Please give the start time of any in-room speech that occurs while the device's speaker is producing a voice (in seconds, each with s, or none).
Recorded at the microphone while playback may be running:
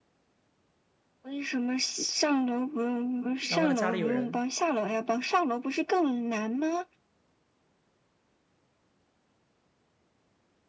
3.4 s